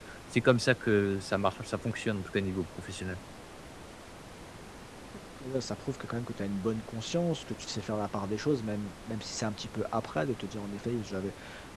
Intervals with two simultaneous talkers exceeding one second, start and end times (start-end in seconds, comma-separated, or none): none